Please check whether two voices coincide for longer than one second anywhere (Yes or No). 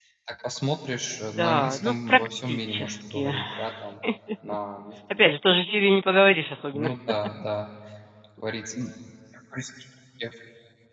Yes